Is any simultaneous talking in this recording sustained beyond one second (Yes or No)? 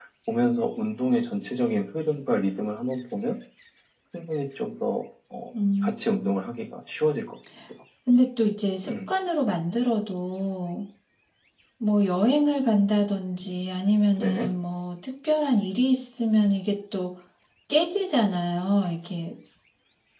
No